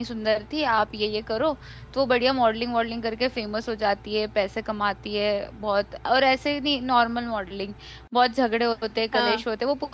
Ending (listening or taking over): listening